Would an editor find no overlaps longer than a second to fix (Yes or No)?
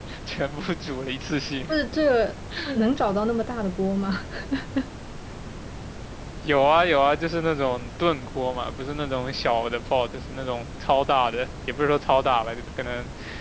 Yes